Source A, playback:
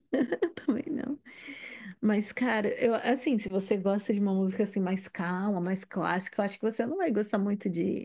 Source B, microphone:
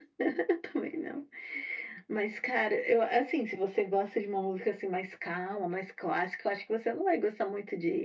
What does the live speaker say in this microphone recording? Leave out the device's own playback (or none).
none